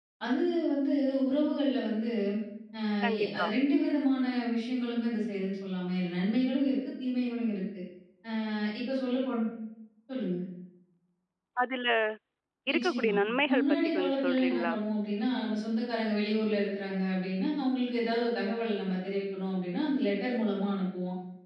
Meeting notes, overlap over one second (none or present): present